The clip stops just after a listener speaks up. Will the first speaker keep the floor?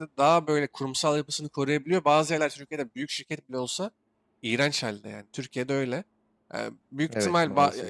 Yes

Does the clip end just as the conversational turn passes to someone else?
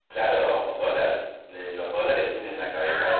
Yes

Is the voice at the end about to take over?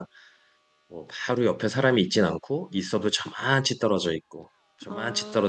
No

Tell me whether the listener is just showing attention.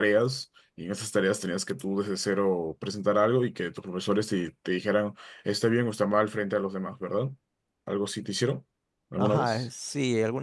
No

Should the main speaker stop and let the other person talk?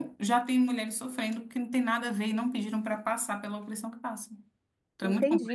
Yes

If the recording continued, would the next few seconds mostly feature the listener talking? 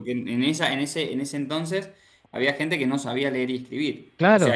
No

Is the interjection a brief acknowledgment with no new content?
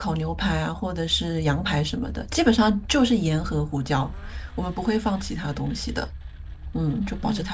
No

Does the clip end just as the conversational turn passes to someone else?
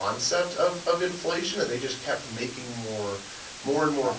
No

